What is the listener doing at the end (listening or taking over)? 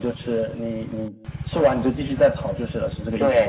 taking over